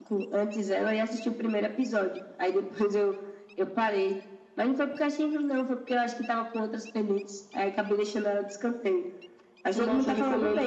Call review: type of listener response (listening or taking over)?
taking over